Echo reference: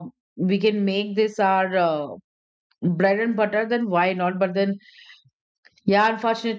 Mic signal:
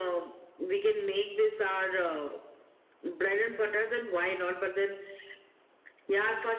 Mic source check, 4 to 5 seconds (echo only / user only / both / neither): echo only